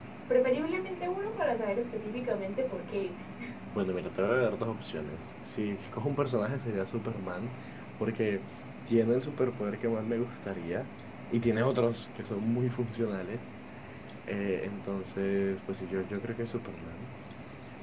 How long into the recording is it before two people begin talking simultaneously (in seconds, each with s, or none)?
none